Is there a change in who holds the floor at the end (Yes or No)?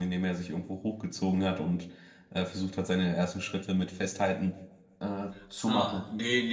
Yes